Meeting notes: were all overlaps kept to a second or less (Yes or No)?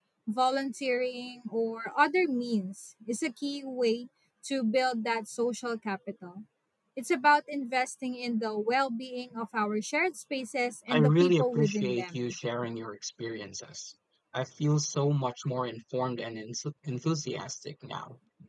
No